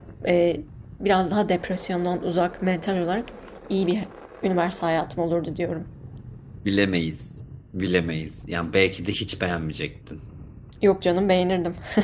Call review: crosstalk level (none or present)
none